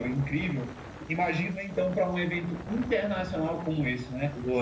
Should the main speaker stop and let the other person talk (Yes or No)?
No